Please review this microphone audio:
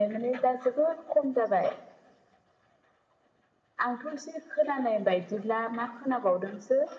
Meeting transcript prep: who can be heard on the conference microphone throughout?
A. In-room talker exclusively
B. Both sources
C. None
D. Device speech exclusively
D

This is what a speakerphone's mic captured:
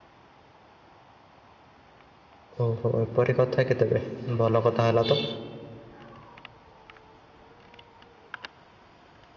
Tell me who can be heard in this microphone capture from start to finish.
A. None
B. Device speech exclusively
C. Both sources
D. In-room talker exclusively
D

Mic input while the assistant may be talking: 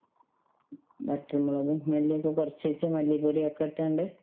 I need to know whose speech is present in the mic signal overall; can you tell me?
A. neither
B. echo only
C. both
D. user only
B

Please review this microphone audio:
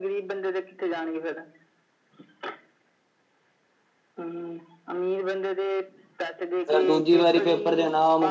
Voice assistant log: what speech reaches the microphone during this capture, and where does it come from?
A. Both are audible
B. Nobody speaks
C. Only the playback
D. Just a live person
A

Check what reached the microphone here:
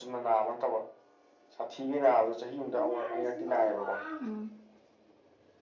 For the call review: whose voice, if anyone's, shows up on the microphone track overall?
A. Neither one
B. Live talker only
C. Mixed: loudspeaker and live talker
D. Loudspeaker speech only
C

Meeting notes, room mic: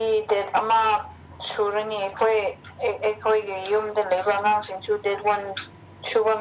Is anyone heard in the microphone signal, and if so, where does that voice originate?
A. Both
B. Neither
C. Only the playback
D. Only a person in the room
C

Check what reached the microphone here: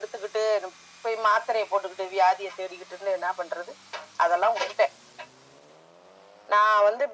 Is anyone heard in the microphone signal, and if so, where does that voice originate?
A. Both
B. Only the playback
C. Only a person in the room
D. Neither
B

